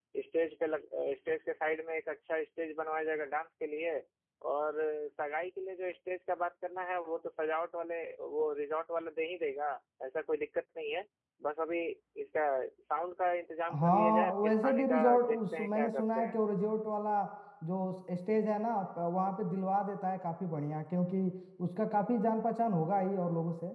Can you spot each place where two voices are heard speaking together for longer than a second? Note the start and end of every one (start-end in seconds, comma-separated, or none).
13.7-16.4